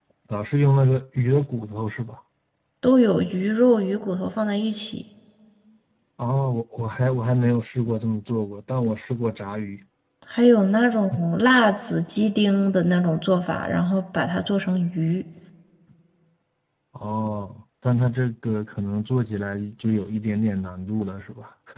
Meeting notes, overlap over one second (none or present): none